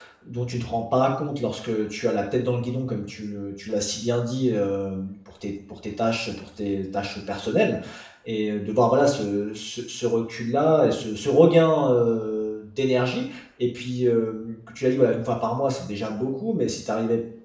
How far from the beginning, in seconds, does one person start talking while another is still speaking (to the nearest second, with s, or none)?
none